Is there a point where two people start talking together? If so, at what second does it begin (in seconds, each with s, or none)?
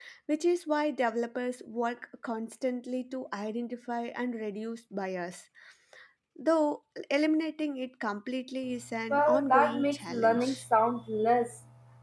9.1 s